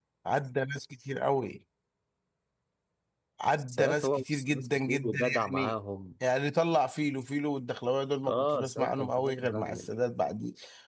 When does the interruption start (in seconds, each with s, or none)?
3.7 s